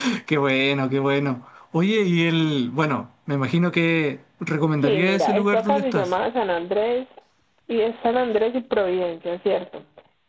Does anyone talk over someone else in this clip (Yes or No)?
Yes